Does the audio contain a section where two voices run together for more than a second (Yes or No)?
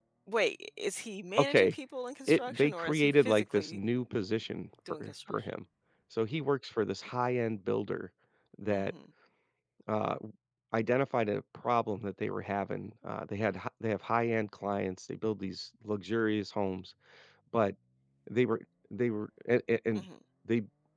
Yes